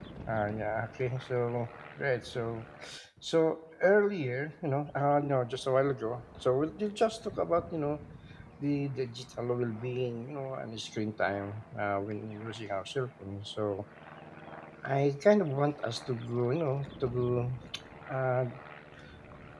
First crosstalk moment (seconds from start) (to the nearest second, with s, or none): none